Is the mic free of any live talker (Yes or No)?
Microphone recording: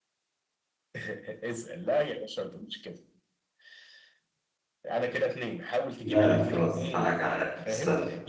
No